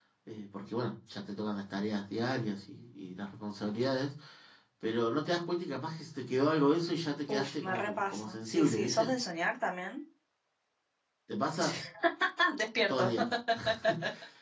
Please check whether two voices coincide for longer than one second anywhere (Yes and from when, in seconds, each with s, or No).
Yes, from 7.3 s